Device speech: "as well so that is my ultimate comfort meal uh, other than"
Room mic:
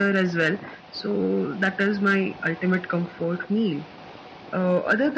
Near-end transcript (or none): none